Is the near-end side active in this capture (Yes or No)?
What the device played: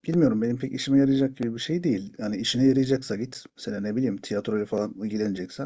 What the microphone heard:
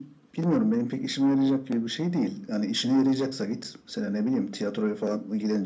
No